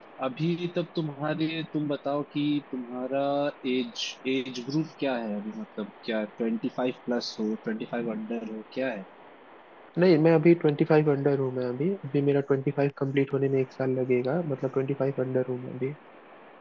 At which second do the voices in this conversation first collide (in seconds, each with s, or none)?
none